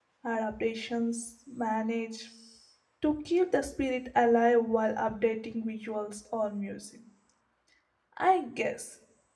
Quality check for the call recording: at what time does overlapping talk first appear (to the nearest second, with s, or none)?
none